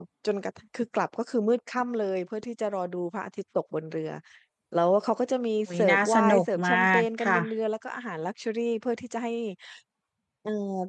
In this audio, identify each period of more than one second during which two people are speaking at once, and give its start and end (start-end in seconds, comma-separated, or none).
5.8-7.4